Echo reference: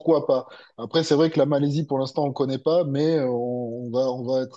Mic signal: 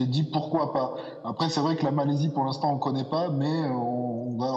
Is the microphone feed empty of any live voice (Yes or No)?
Yes